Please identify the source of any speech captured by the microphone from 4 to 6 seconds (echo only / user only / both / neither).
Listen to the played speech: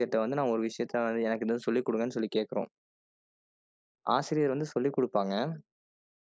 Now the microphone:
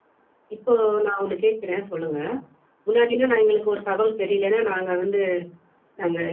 user only